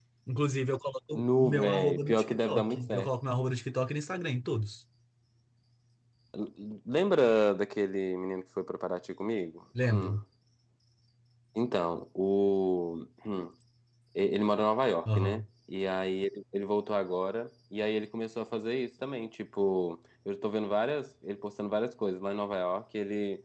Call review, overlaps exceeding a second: present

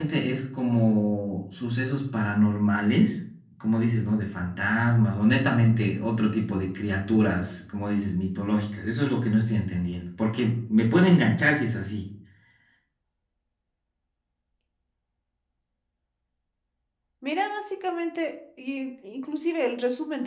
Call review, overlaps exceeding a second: none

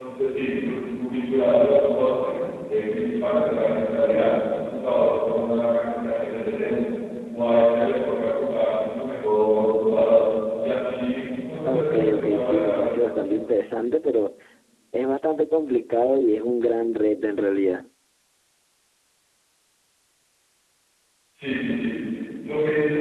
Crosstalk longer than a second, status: present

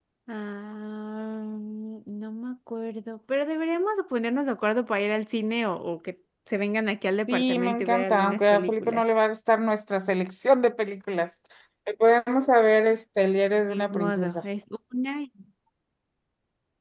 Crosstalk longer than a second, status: present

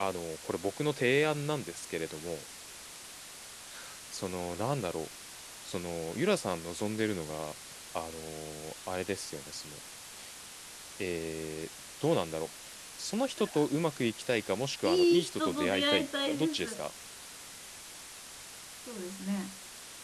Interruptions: present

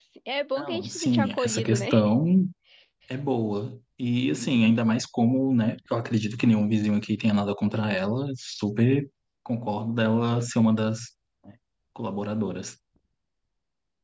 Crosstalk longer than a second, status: present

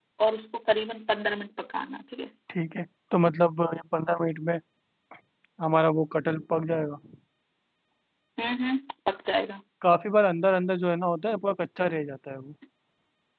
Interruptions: none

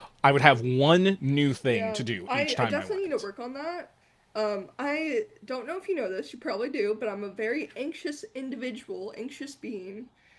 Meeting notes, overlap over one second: present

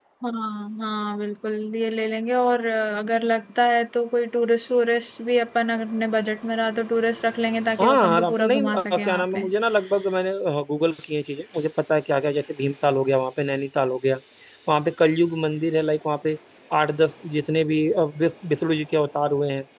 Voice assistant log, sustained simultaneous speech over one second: present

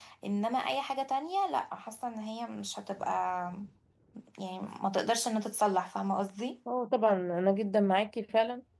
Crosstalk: none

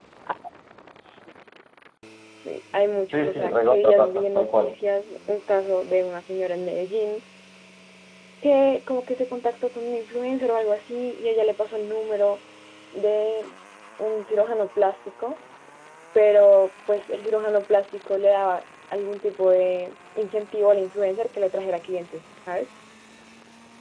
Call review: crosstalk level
present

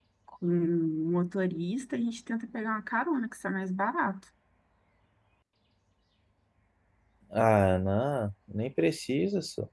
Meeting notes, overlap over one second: none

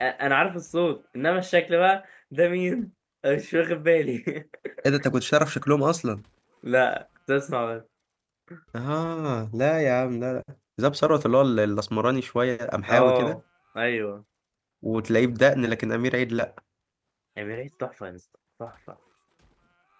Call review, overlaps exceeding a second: none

